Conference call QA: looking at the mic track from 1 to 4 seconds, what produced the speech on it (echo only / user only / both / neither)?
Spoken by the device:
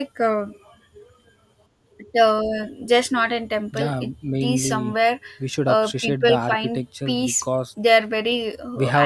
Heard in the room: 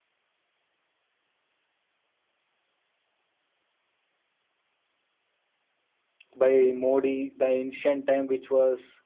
neither